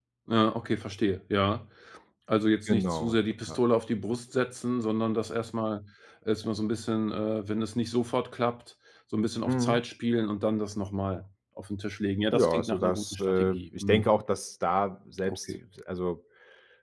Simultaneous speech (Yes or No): Yes